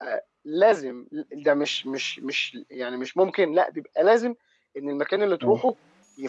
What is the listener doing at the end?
listening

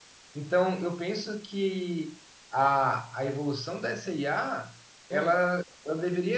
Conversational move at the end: listening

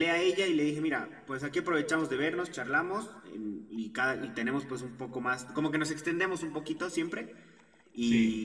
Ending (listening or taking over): listening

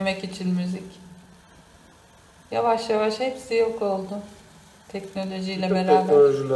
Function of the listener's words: taking over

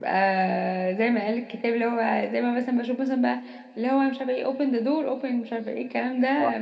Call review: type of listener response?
taking over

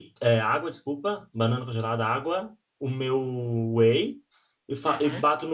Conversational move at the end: listening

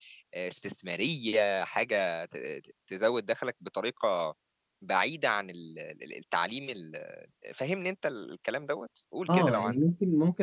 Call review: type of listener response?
taking over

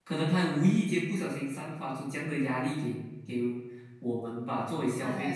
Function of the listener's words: listening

